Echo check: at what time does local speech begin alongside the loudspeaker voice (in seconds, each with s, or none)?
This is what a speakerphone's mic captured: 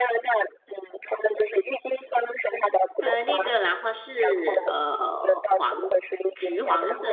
3.0 s